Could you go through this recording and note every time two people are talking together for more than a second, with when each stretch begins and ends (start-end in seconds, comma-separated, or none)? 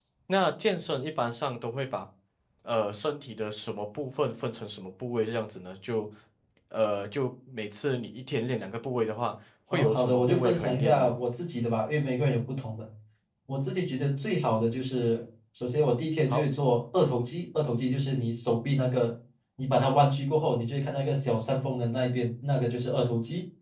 9.7-11.1